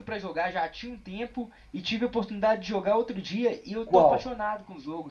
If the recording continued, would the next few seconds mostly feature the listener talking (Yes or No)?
No